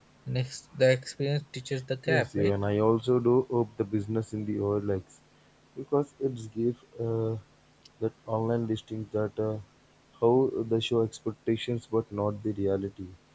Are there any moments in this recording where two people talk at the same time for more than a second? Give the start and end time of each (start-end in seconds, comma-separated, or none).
none